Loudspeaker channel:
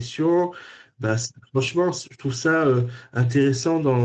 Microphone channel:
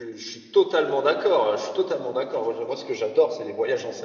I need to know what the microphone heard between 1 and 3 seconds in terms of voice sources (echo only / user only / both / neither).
user only